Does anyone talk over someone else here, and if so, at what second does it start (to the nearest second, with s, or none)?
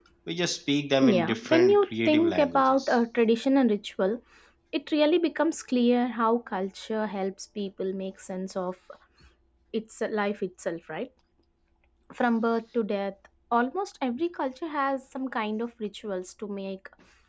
1 s